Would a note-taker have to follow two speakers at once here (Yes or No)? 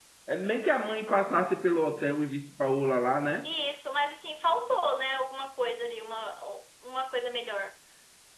No